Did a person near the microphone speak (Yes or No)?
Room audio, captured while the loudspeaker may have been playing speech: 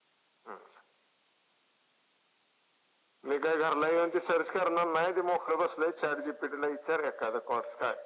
No